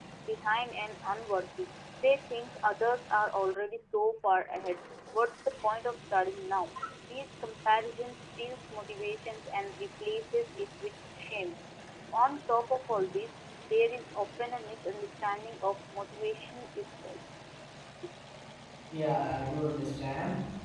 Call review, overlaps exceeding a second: none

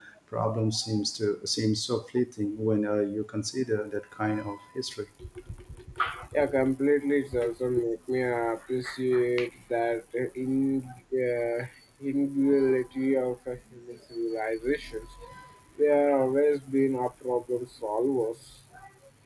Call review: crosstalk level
none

